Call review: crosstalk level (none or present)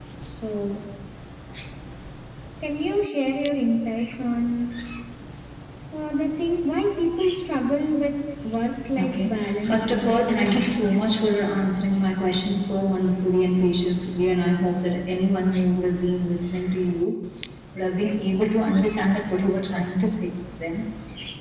present